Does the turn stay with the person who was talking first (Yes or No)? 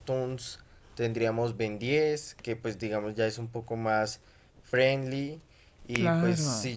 Yes